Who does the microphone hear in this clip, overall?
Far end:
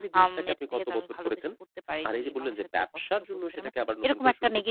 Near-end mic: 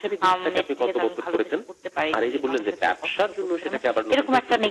echo only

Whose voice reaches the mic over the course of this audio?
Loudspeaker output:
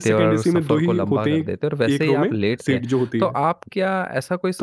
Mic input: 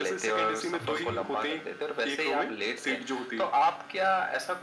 both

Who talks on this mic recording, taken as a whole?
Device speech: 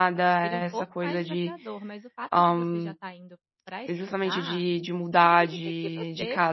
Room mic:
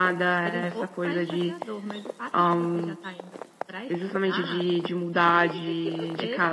echo only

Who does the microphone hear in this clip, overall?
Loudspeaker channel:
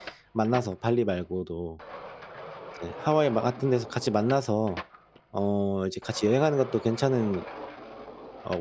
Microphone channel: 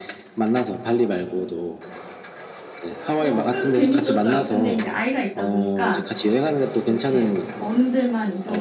both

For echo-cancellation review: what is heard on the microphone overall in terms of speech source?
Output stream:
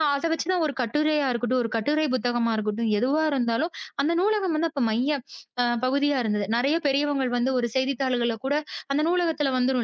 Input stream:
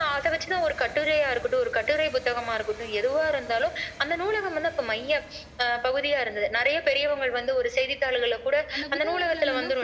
both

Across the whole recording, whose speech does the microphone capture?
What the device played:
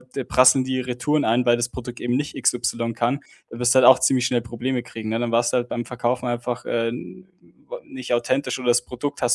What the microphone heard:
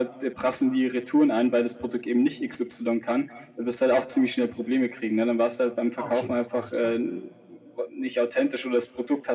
both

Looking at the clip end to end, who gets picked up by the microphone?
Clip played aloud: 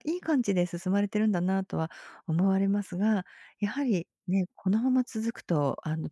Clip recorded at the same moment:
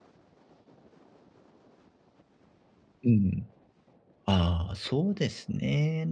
user only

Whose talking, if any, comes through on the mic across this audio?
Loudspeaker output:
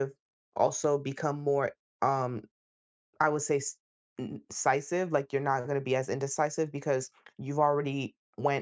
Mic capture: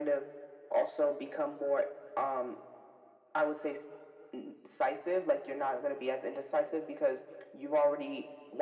echo only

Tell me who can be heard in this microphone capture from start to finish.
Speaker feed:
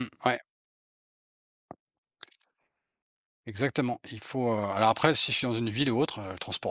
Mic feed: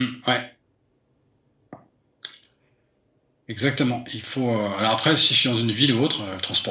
echo only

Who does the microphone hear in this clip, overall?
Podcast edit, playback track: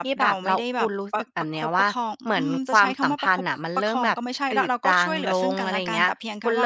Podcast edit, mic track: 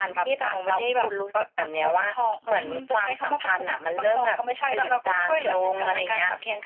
echo only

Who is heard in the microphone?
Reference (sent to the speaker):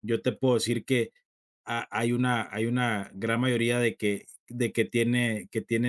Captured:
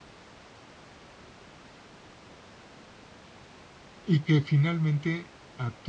user only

